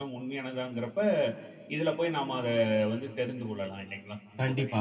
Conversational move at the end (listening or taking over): taking over